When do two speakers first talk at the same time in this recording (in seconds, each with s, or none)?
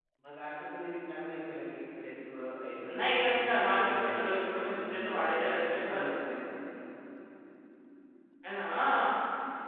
2.9 s